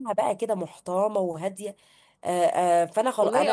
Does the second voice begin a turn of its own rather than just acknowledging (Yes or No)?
Yes